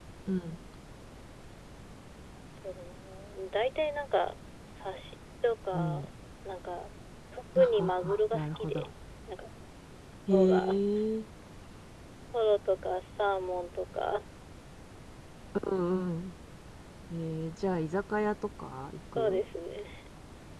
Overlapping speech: Yes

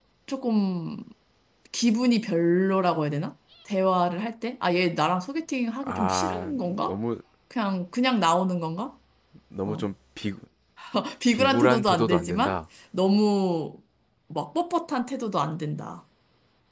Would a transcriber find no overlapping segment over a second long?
No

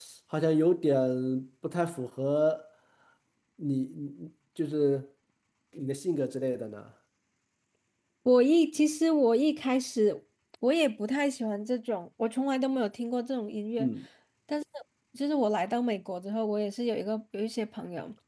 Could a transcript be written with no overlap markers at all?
Yes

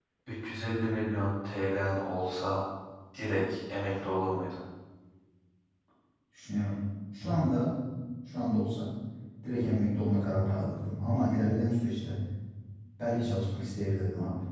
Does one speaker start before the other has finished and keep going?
No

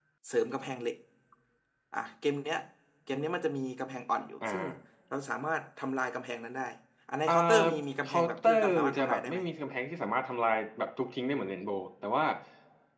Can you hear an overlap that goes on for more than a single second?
Yes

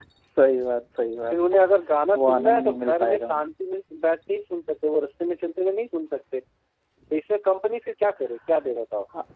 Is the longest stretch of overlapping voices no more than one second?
No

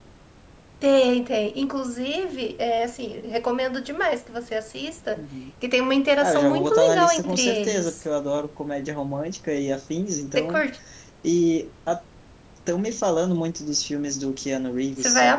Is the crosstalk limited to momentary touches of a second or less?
No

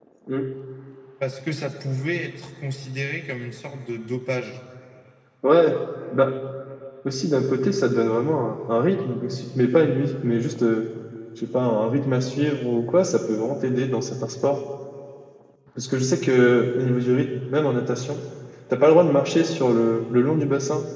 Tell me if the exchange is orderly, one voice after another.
Yes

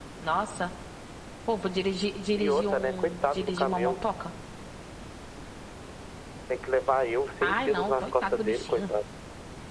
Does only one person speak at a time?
No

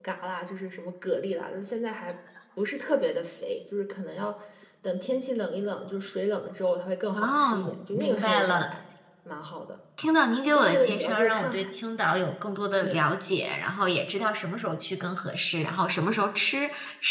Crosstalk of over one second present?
Yes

